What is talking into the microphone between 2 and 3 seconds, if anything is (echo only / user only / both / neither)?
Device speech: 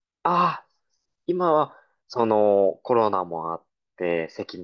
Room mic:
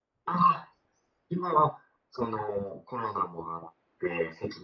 echo only